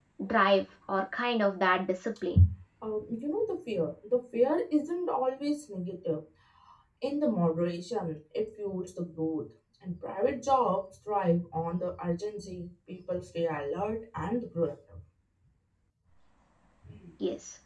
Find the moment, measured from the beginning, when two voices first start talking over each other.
none

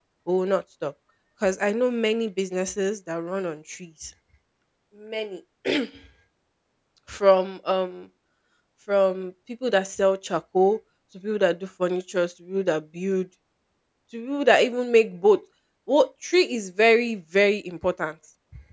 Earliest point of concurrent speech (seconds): none

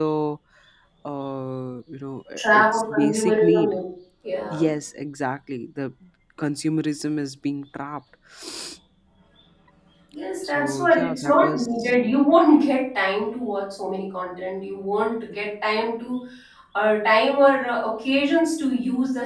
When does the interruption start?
2 s

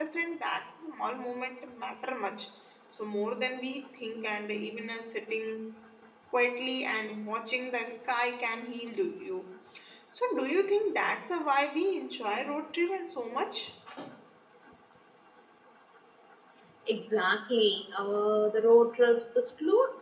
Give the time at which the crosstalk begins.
none

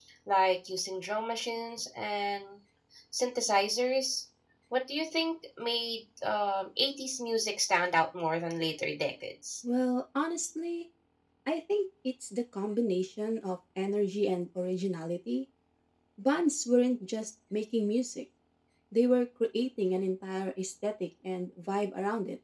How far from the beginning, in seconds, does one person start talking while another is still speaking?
none

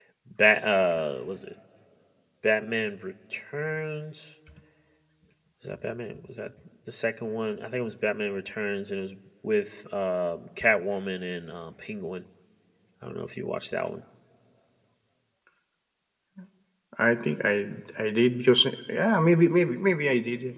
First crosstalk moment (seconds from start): none

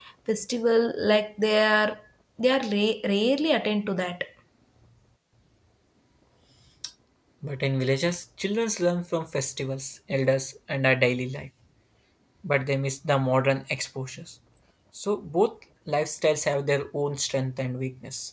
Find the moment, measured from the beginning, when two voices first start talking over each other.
none

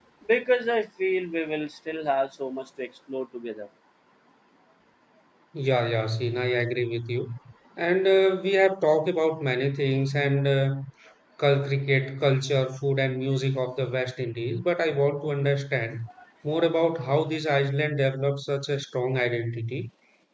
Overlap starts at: none

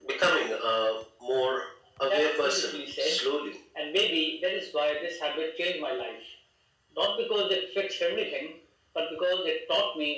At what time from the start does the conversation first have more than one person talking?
2 s

